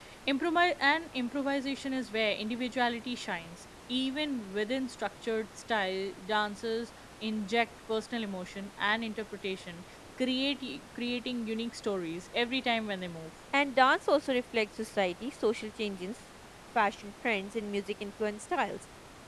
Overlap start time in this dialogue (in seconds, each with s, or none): none